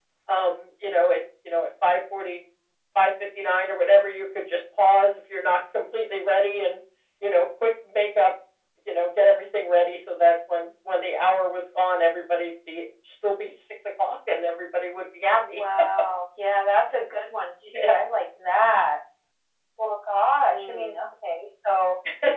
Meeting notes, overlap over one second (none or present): none